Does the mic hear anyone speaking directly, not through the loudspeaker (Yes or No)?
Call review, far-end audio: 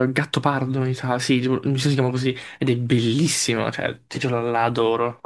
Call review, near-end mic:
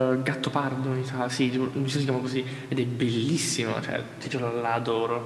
No